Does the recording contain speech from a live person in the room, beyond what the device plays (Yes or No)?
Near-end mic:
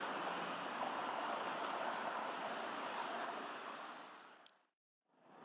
No